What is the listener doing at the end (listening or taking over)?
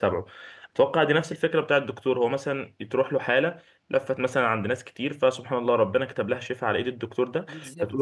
listening